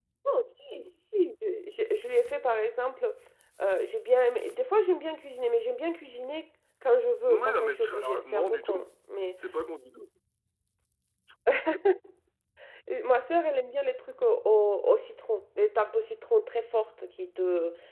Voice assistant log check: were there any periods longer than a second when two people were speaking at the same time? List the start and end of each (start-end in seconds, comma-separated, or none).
7.3-8.9